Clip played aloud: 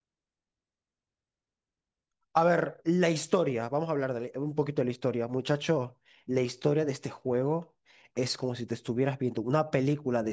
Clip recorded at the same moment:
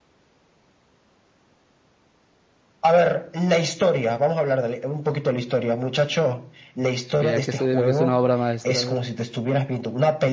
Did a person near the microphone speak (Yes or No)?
Yes